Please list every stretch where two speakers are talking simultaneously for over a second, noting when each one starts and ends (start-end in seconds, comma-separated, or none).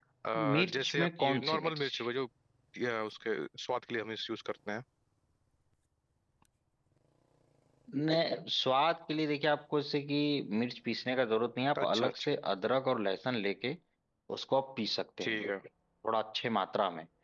0.5-1.9